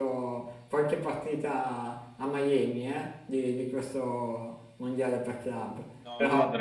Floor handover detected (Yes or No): Yes